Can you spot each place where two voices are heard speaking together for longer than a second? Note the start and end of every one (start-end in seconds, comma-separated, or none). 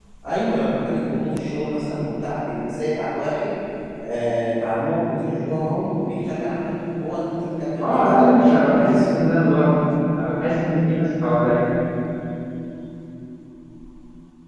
7.8-9.0